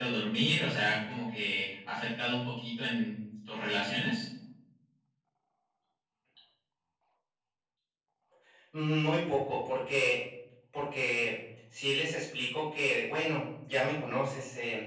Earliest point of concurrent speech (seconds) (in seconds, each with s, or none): none